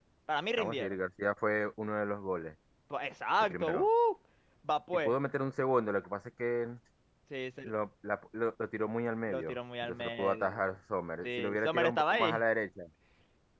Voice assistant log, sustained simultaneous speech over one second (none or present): present